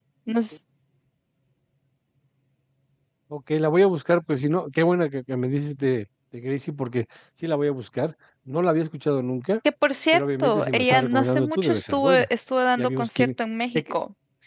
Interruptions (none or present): present